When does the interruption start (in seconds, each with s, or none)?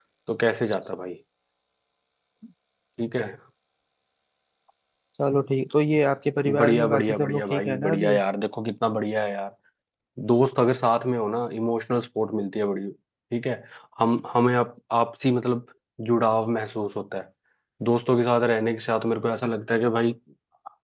6.5 s